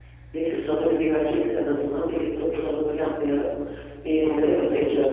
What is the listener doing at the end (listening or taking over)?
taking over